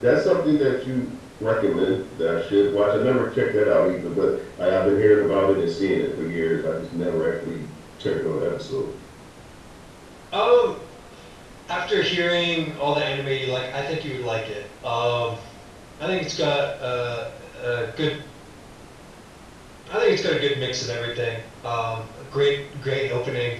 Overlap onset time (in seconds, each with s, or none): none